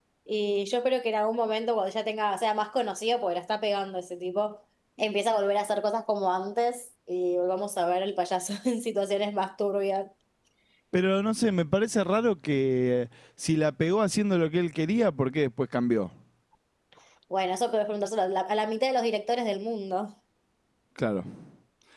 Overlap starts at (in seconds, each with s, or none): none